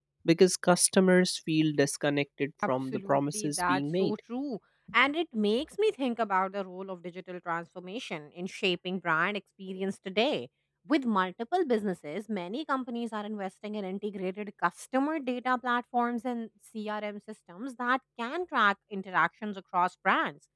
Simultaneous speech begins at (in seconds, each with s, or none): 2.6 s